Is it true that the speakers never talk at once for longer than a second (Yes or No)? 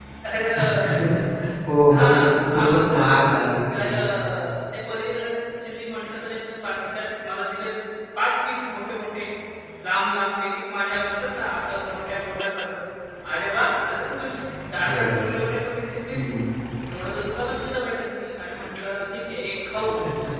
No